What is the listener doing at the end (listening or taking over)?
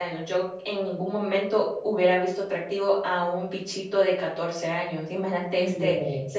listening